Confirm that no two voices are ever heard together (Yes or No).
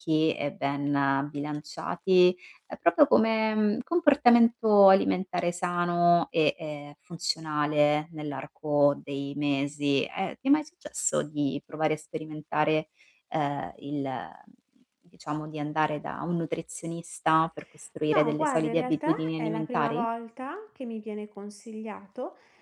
No